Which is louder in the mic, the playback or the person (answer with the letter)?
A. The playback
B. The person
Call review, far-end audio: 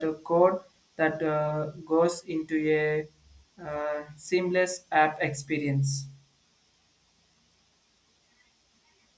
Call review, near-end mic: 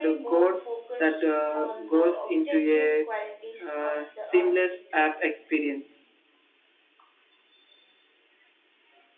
A